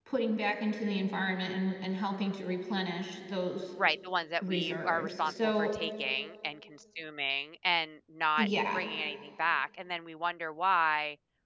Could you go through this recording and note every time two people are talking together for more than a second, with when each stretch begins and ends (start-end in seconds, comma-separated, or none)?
4.4-5.7